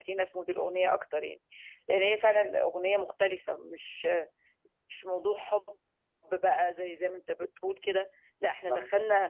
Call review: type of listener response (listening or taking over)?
listening